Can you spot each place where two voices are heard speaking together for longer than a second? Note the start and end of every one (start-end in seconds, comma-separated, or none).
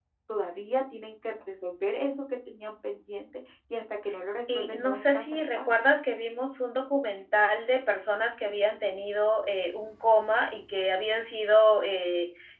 4.5-5.7